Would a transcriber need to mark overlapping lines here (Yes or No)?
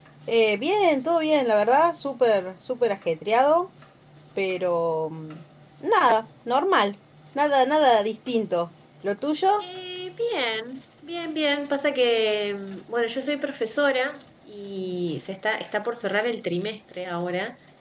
No